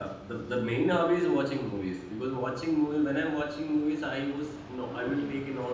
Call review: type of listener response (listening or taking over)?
listening